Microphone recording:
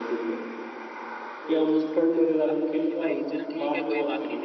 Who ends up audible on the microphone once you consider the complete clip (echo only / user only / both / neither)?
both